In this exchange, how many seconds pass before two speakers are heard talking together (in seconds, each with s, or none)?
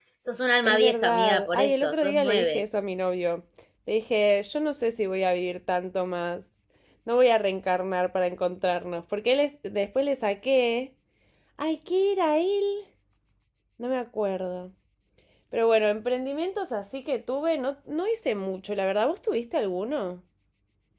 0.7 s